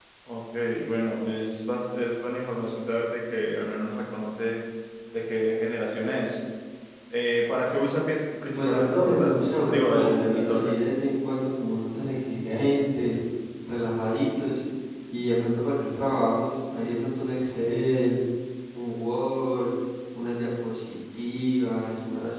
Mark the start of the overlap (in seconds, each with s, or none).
8.5 s